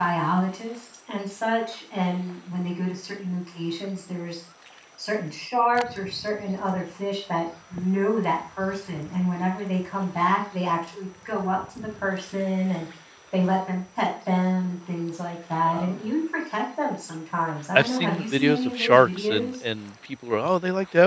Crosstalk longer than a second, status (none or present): present